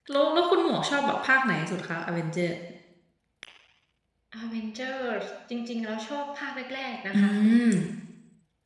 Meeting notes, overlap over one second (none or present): none